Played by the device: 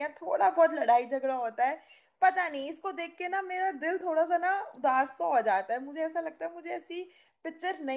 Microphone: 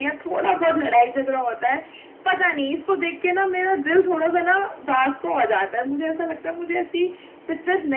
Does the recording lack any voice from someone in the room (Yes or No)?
Yes